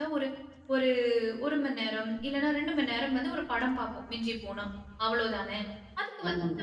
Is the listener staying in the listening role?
Yes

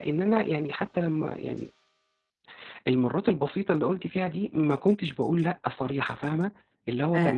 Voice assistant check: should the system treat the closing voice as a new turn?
Yes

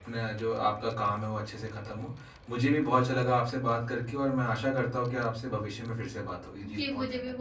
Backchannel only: No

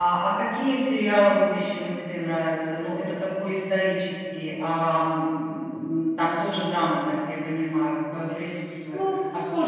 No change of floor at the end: No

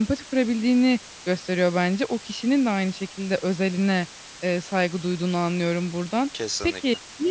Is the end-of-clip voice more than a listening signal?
No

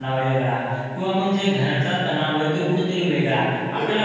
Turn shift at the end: No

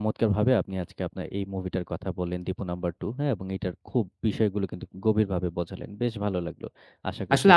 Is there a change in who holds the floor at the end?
Yes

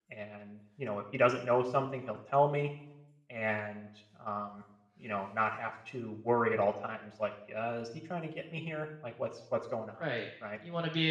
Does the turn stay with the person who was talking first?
No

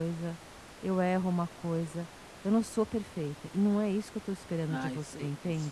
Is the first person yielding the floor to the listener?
Yes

